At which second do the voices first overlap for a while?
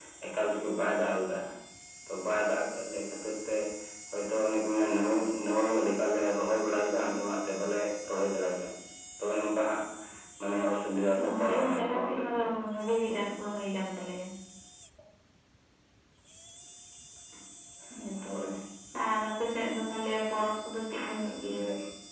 11.2 s

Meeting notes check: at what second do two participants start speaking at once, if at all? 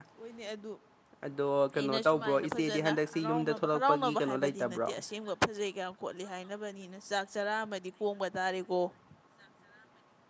1.7 s

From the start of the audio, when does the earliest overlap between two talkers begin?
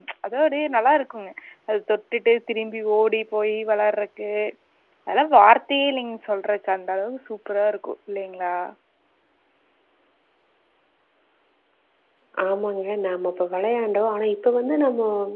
none

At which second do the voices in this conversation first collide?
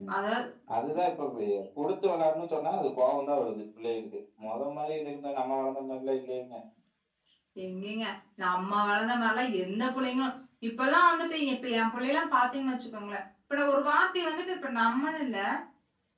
none

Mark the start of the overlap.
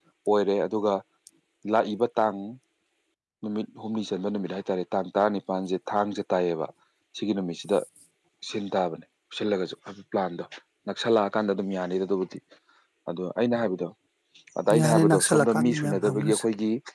14.9 s

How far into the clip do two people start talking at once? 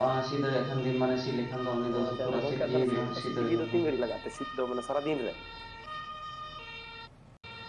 1.9 s

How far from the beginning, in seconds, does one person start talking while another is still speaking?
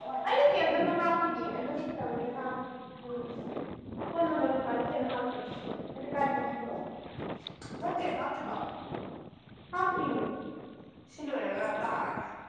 none

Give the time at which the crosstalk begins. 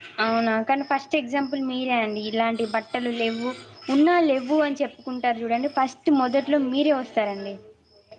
none

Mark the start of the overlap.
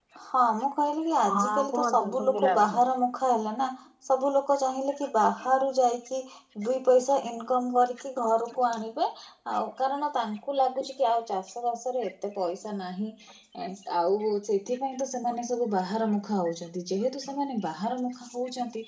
1.3 s

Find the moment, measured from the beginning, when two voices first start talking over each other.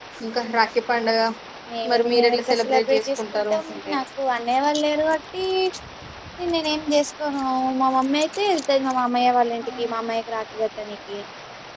1.9 s

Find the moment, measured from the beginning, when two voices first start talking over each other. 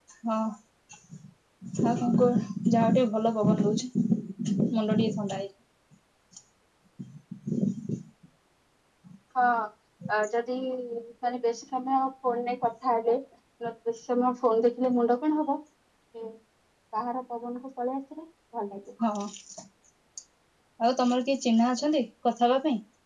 none

